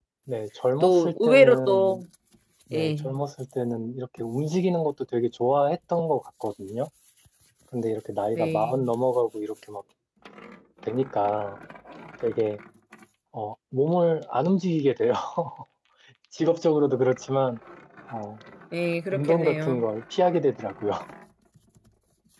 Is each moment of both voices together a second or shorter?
No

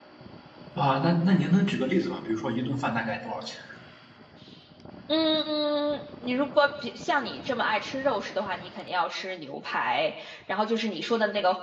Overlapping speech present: No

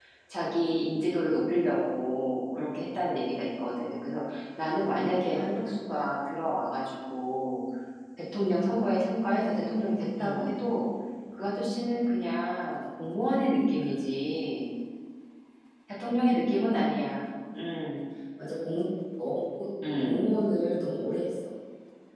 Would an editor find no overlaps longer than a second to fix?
Yes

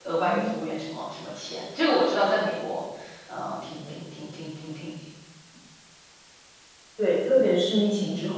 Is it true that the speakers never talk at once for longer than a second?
Yes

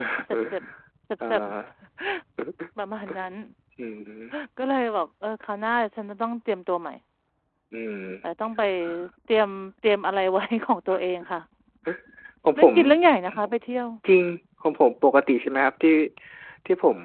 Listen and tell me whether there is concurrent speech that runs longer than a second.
No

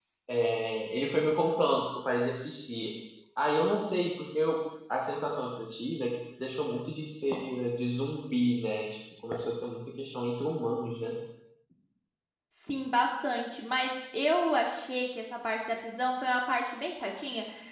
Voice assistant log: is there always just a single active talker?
Yes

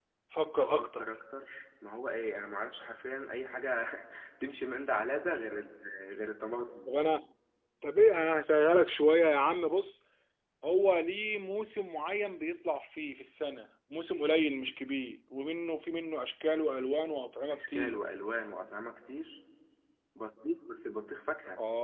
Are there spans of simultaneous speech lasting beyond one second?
No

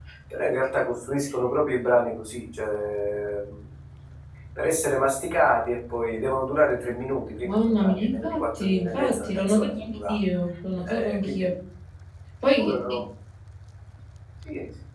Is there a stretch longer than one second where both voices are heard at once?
Yes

